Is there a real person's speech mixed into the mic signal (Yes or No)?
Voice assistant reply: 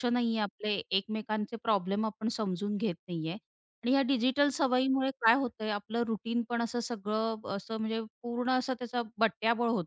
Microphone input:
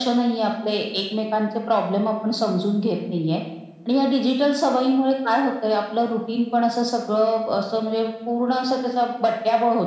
No